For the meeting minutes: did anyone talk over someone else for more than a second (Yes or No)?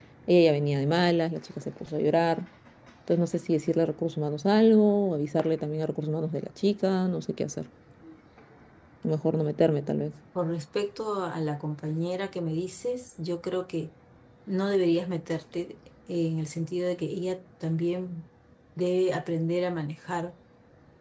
No